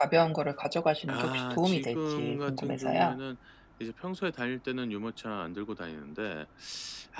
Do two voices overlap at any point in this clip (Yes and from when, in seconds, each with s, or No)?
Yes, from 1.1 s